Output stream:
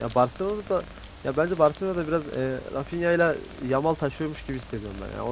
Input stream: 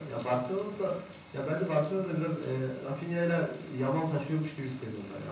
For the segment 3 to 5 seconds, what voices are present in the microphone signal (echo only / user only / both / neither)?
echo only